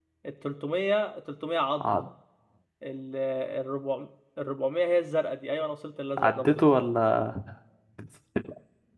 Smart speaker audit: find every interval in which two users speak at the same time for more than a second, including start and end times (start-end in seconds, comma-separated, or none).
none